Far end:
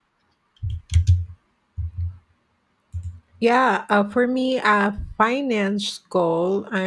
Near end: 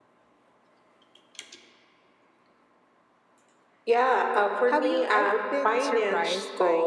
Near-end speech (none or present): present